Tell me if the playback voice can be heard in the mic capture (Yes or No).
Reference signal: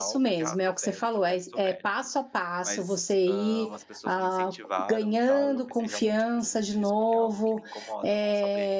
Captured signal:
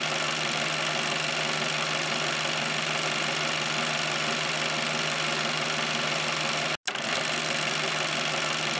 No